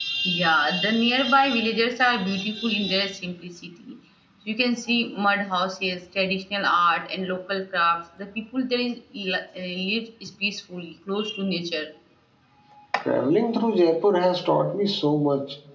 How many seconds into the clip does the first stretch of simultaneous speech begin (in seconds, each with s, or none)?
none